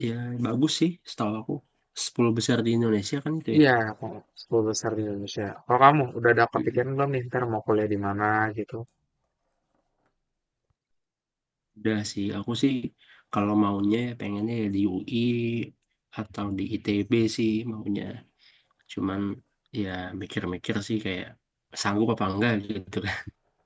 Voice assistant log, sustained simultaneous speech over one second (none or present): none